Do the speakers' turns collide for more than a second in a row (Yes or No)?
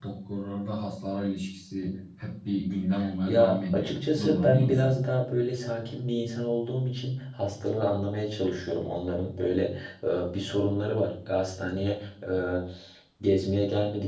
Yes